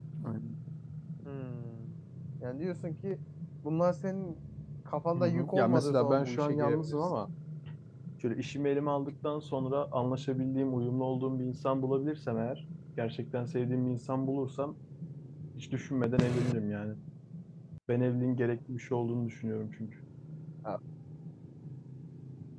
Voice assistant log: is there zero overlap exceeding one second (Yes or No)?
No